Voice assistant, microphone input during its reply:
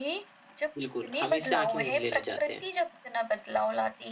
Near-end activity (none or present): present